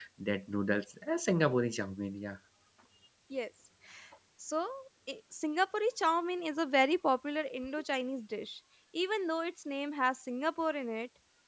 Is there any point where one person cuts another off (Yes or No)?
No